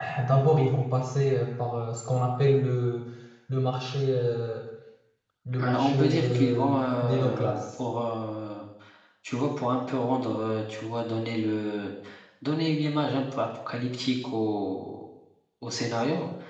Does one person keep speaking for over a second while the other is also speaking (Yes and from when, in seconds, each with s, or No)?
Yes, from 5.6 s